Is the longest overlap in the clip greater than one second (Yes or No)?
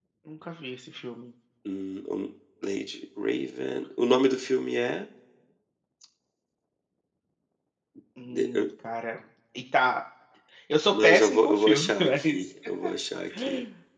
Yes